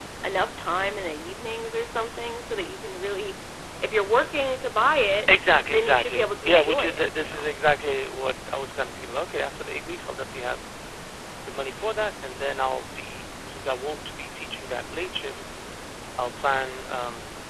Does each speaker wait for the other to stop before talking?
No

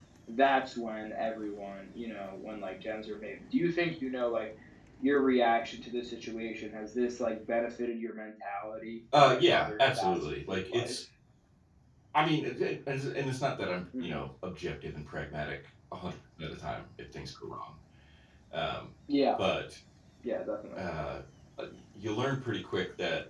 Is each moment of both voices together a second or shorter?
No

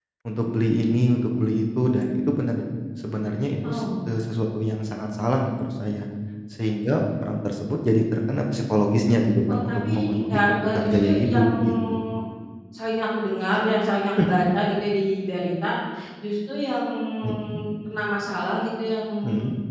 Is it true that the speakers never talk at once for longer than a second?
No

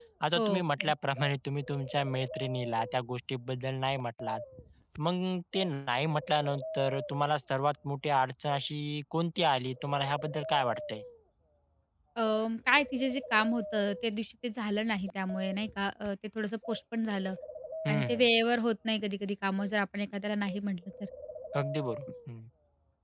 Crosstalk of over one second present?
No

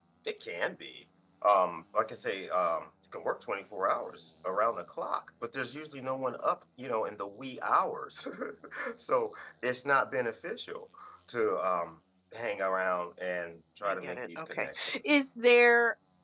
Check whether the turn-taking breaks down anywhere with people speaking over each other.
Yes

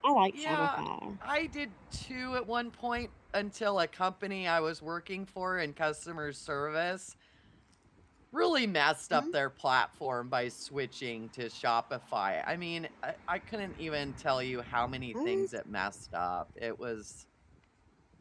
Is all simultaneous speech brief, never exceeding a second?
Yes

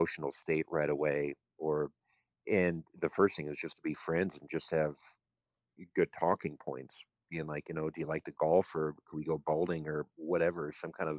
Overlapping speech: No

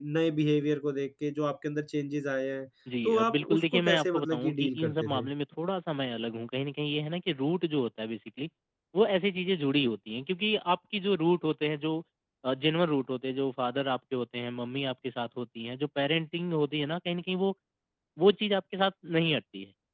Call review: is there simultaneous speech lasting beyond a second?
Yes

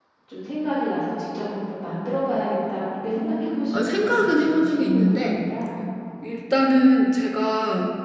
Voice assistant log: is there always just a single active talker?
No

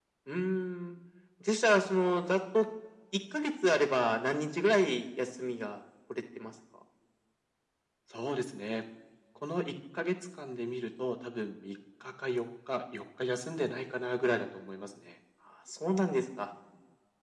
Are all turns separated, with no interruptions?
Yes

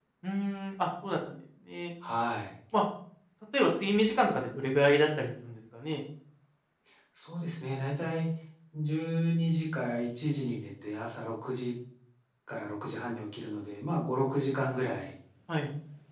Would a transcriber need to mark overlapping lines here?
No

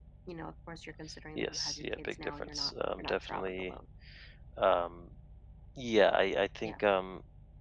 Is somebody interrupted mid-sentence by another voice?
Yes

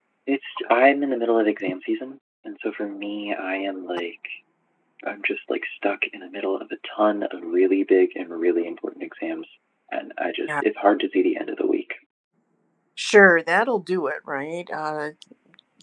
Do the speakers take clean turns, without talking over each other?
Yes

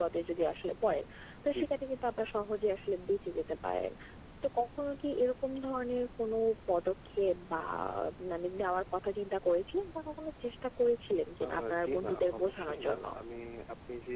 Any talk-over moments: Yes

